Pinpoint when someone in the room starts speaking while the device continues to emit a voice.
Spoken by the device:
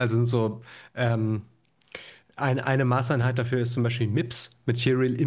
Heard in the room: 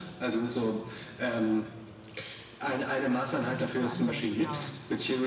3.4 s

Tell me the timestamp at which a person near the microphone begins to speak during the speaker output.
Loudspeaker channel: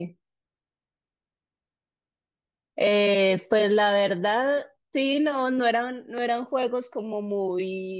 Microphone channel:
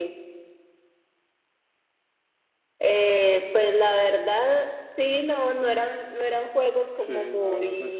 7.1 s

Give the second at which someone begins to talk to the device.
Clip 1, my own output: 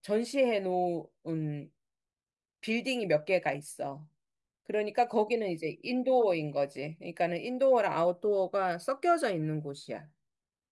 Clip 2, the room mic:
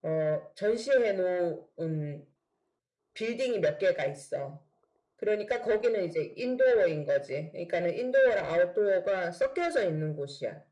none

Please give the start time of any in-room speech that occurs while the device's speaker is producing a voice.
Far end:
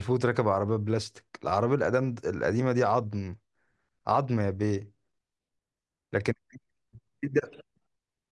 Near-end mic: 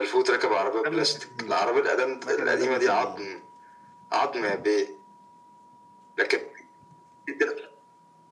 0.9 s

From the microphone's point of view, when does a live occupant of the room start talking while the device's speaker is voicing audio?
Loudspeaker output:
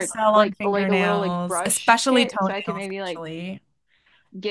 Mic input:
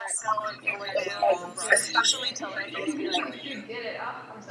0.6 s

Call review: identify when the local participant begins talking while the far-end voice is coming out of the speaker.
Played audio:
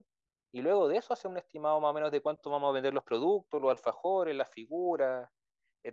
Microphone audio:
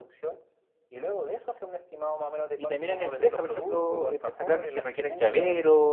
2.6 s

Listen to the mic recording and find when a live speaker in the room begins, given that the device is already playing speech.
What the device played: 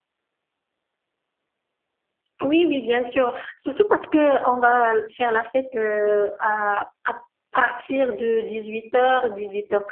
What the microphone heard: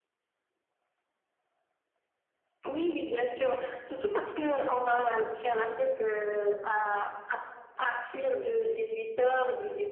none

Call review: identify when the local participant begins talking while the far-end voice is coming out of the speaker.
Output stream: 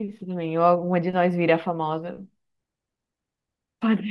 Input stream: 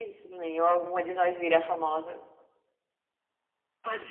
none

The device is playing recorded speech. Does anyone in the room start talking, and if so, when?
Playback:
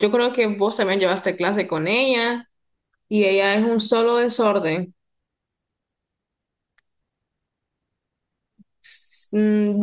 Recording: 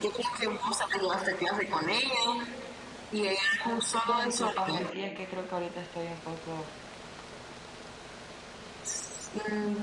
4.0 s

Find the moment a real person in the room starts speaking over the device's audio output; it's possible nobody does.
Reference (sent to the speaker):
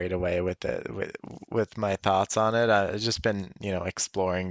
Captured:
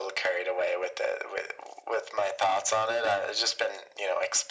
none

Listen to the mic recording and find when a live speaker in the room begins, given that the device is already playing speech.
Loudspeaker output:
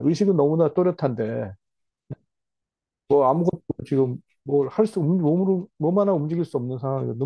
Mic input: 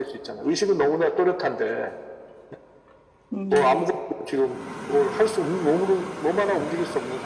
3.3 s

